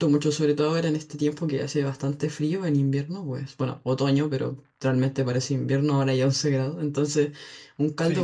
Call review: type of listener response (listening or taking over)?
taking over